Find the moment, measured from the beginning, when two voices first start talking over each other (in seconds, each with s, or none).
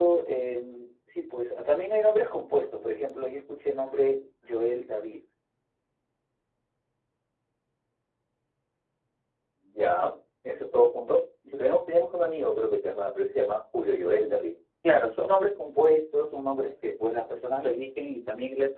none